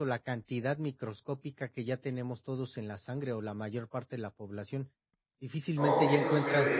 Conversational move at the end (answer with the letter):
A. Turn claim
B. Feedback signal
A